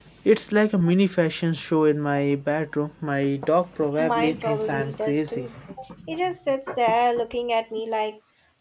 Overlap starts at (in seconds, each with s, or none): 4.0 s